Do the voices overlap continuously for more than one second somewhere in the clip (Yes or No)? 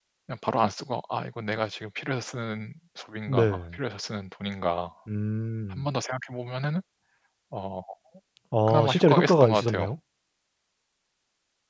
Yes